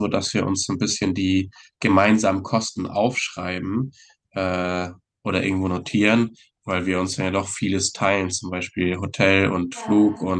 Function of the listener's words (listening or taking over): listening